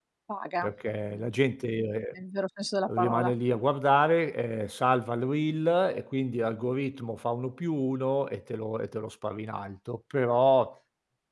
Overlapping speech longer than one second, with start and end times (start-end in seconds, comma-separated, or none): none